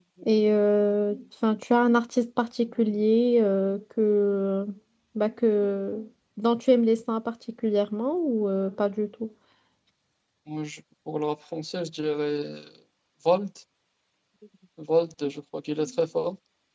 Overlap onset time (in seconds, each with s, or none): none